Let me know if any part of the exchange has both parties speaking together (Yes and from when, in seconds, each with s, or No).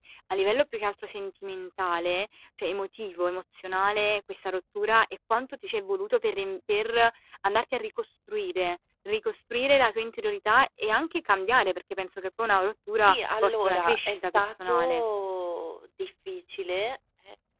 Yes, from 13.0 s